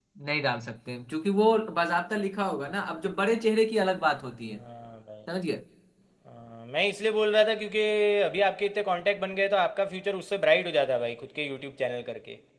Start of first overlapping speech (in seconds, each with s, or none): none